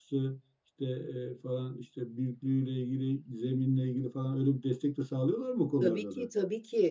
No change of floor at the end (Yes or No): No